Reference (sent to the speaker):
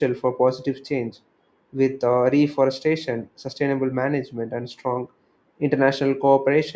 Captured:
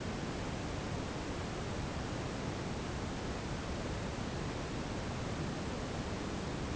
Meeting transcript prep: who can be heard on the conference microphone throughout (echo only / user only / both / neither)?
neither